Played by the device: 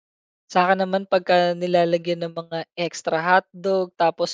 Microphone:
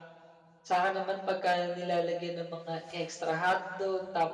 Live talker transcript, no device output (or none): none